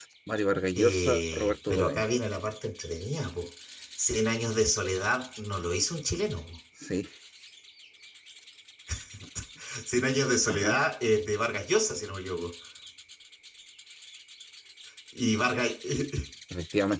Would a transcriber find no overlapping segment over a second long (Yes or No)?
No